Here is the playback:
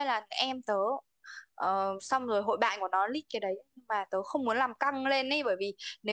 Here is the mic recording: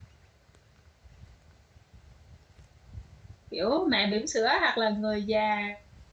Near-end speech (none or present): present